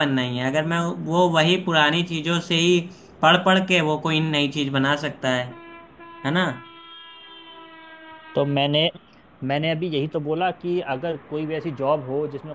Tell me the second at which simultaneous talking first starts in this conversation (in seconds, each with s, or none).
none